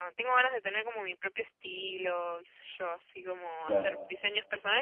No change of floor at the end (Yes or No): Yes